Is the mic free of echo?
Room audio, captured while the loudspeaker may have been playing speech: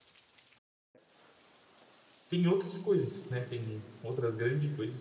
Yes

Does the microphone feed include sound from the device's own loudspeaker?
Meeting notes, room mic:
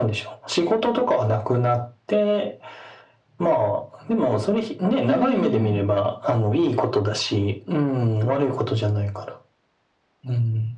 Yes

